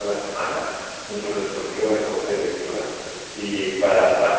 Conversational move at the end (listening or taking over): listening